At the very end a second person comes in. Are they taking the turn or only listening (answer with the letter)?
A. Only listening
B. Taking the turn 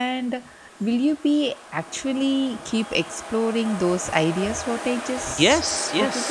B